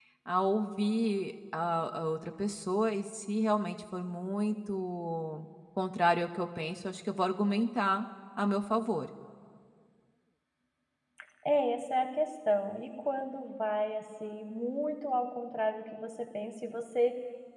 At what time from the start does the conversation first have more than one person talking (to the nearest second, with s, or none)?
none